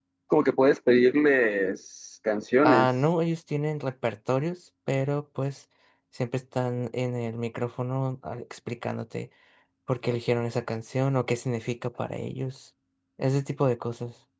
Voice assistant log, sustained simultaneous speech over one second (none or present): none